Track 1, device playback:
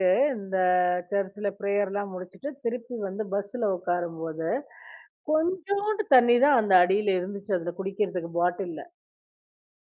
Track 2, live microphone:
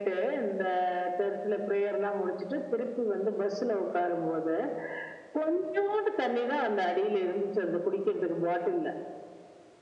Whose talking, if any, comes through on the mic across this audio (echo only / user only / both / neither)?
echo only